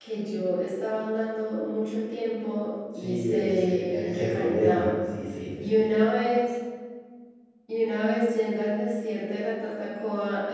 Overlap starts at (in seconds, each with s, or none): 3.0 s